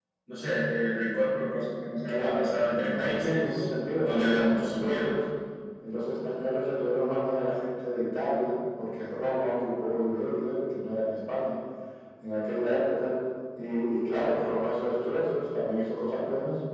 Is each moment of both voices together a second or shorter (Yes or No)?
No